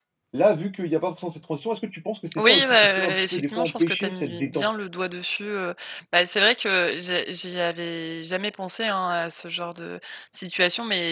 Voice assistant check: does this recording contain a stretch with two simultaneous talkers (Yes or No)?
Yes